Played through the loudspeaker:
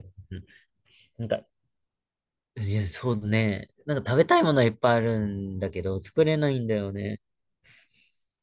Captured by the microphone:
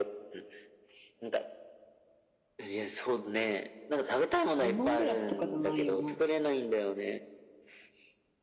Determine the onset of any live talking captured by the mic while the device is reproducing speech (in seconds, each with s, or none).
4.6 s